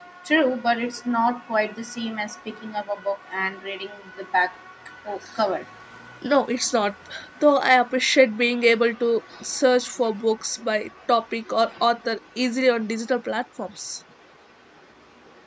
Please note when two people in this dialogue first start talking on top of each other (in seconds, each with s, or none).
none